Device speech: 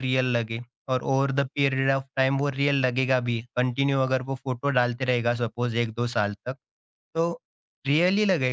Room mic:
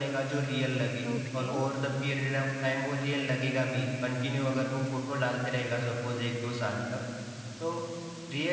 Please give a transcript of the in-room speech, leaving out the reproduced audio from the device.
ओके,

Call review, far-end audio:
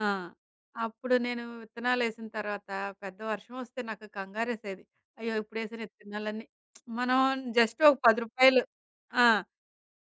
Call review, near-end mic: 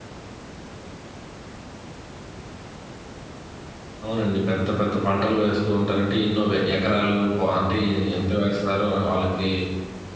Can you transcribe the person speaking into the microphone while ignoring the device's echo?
అవునండి. పెద్ద పెద్ద పంటలు వేస్తూ ఉంటారు. అంటే ఎన్నో వే ఎకరాలు పొ అంటే ఎ ఎంత వేస్తారో వాళ్ళకి

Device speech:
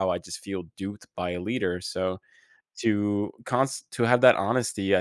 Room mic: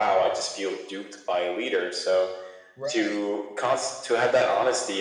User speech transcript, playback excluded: Right.

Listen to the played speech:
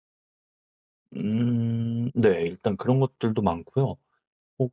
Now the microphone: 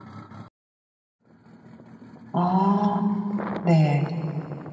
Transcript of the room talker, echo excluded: 아 네.

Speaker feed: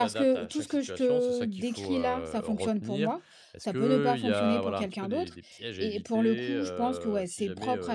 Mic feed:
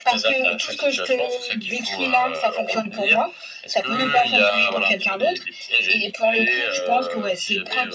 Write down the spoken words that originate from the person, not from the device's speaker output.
none

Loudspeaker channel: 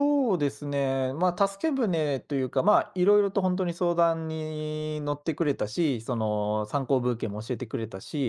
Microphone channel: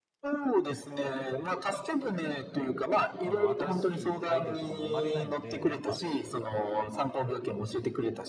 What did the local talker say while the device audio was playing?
その、新しいアイデアとかも生まれないので、やっぱ

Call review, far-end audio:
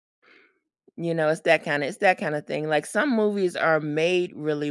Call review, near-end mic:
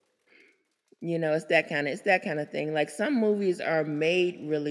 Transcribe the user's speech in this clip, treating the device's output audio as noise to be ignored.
none

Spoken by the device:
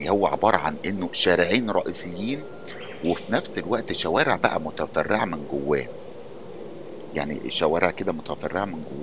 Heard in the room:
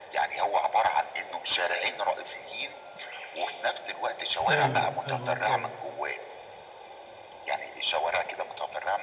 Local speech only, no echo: فاهمك، فاهمك آه،

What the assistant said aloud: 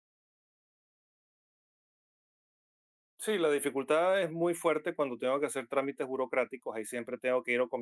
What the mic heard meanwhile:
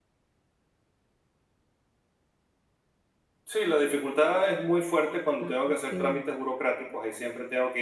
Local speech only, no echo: ah, okey.

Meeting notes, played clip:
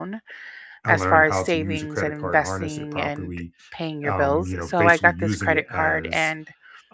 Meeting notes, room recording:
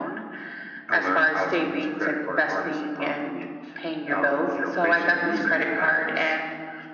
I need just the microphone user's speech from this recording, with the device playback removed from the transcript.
none

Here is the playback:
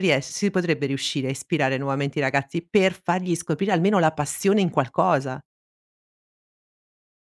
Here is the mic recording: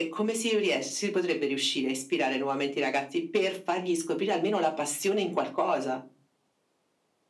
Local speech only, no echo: none

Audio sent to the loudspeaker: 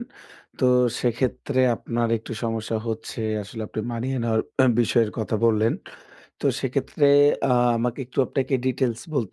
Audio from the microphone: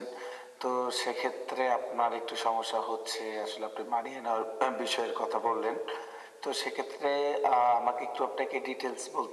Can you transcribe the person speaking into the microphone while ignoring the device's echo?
none

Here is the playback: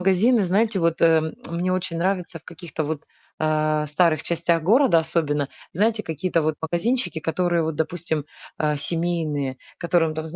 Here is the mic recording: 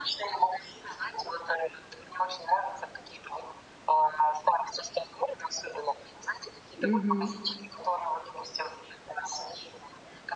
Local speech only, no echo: Мгм.

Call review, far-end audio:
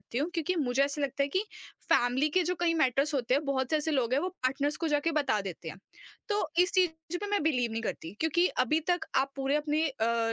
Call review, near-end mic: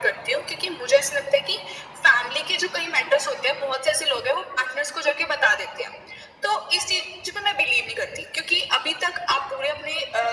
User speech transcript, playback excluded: none

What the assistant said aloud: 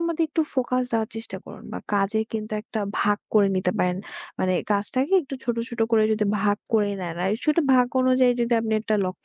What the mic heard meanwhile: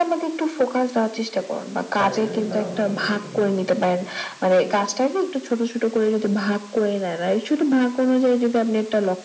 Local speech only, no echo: তাতে কিন্তু তারা অসন্তুষ্ট নয়।

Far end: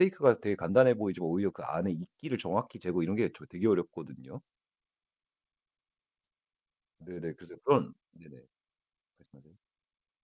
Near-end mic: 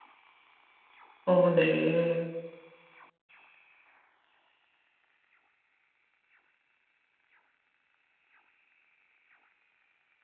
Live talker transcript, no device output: 어 네.

